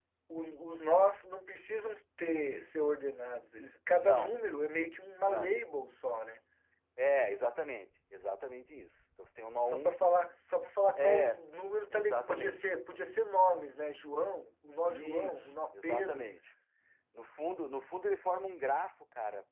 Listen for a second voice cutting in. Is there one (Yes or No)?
Yes